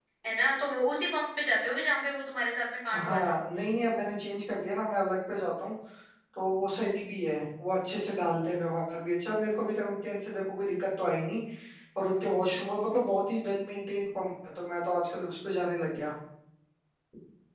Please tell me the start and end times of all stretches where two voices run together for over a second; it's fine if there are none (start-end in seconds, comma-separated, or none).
none